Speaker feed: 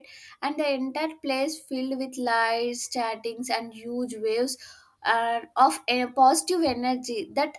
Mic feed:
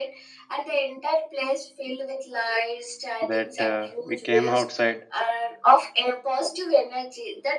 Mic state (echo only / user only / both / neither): both